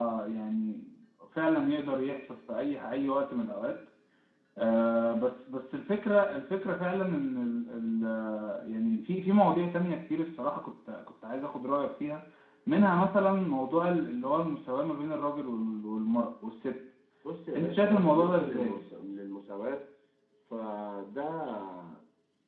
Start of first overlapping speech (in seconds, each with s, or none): 17.6 s